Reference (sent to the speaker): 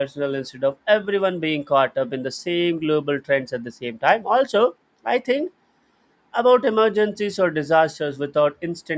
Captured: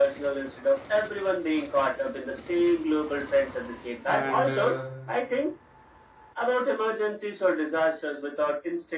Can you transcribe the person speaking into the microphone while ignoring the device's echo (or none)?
and uh,